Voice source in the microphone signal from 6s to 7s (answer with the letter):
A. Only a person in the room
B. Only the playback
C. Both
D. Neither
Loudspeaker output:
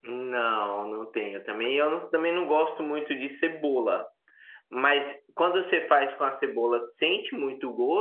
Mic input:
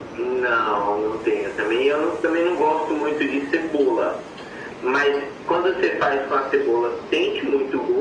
B